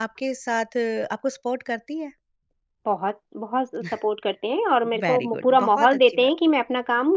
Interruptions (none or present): present